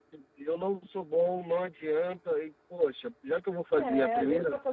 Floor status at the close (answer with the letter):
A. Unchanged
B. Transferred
B